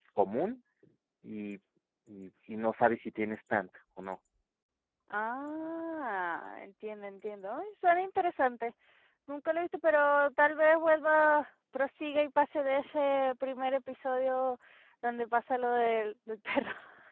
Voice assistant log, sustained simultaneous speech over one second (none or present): none